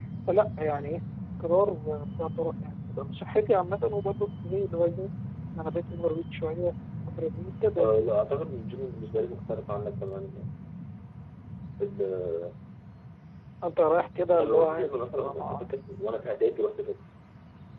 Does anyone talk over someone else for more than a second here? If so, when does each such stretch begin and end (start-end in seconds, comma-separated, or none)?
14.3-15.7